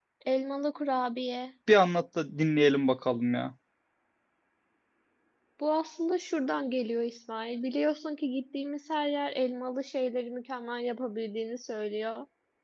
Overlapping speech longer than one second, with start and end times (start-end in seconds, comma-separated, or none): none